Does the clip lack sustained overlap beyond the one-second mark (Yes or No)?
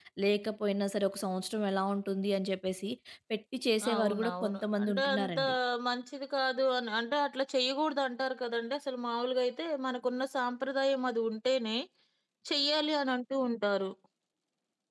No